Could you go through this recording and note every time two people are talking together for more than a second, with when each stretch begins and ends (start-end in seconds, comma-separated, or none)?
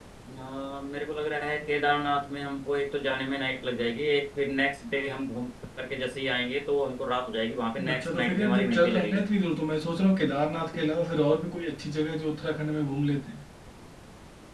7.9-9.2